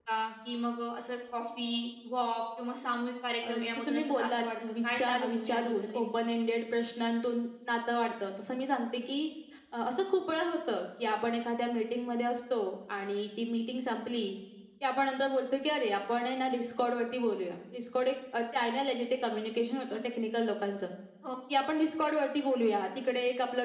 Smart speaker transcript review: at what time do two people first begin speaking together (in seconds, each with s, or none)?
3.4 s